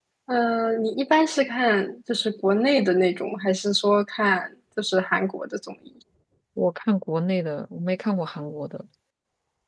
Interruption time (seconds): none

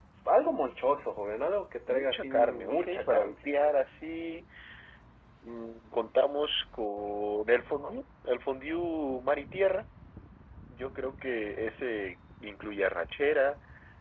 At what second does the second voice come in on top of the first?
1.9 s

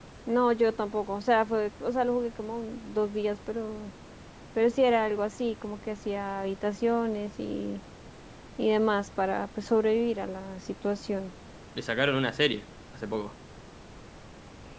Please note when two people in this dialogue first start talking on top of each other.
none

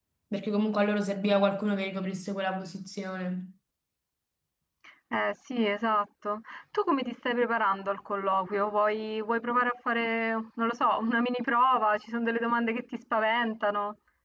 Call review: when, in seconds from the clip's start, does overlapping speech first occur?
none

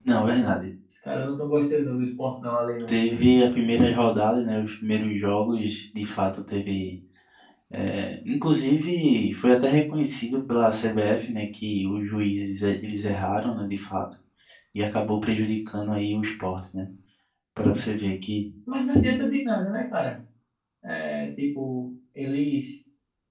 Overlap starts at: none

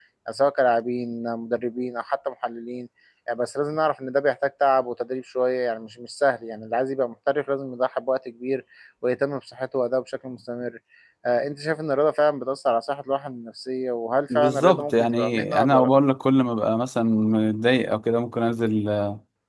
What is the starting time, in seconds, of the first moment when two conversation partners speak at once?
14.3 s

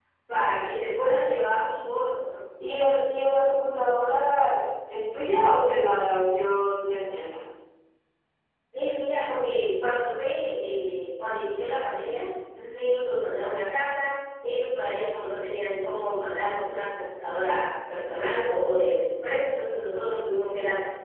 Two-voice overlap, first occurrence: none

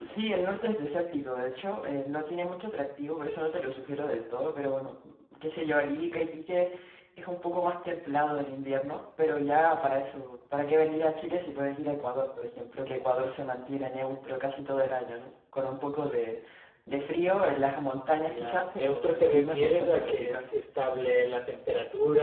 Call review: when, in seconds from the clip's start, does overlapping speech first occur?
18.1 s

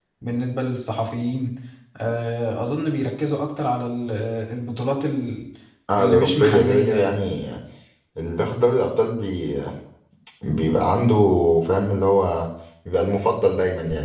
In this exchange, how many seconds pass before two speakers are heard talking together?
6.0 s

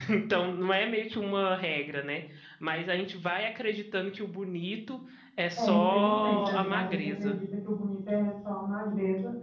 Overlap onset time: 5.6 s

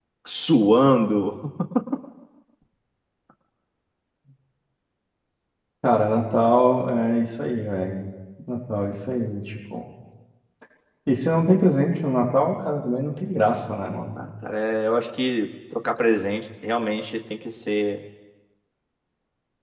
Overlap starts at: none

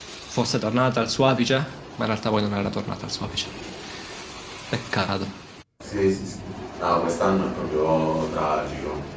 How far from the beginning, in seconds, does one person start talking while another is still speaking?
none

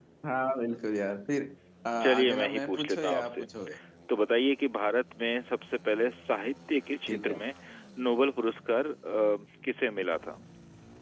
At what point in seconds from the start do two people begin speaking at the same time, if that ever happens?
2.0 s

